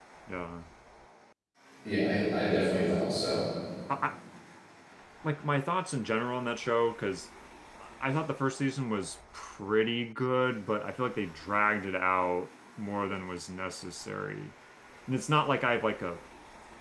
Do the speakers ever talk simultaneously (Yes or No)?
No